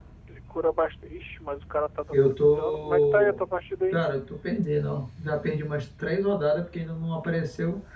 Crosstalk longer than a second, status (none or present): present